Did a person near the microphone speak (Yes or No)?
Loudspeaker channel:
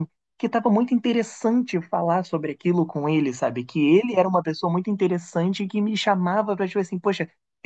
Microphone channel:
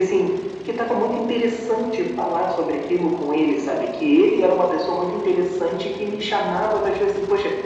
No